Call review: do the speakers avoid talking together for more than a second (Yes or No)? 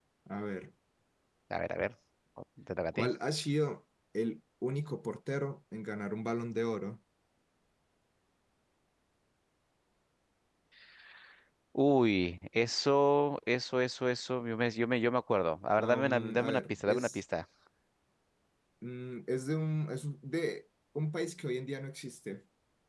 No